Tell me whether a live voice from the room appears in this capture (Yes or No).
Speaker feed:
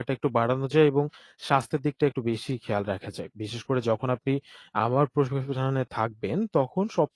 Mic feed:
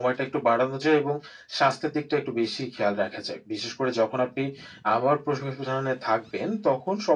No